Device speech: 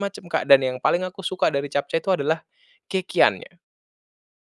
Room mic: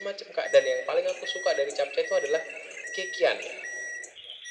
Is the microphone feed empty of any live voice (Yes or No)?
Yes